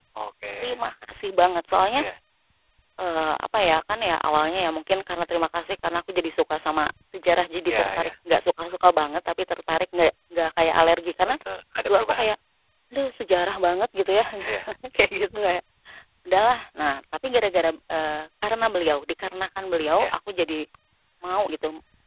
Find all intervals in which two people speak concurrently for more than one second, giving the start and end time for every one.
none

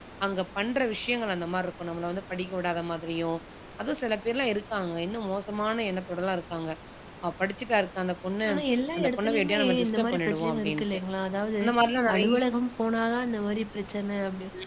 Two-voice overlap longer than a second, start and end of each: 9.0-10.8

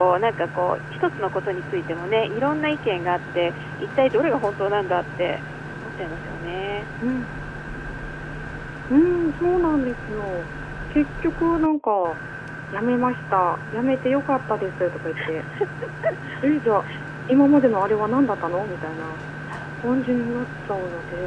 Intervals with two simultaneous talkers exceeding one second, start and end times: none

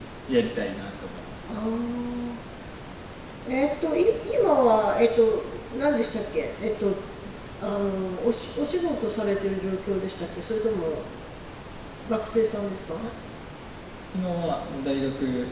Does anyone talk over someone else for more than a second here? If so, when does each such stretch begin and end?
none

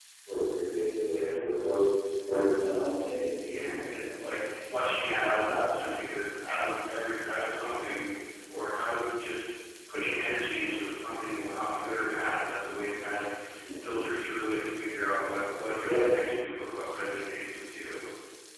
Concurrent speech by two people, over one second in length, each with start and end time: 3.4-4.9

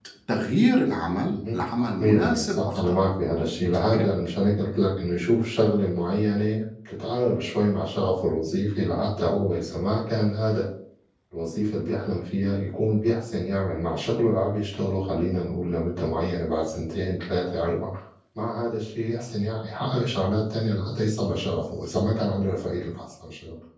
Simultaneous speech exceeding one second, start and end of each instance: 1.3-3.0

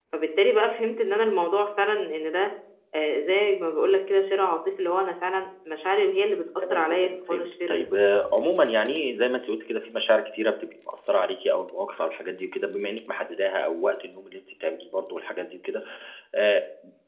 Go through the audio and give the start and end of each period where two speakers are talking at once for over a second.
6.6-7.9

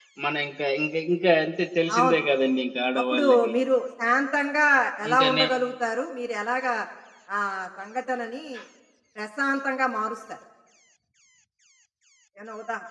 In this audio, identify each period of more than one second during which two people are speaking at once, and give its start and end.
none

